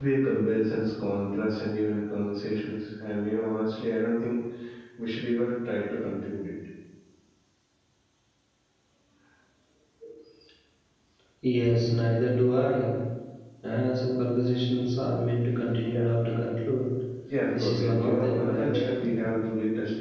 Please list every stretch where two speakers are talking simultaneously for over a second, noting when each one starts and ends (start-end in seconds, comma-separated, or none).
17.6-18.8